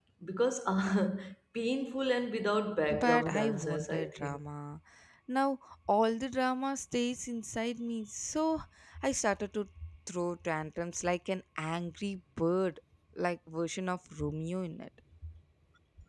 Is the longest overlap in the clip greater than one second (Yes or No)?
Yes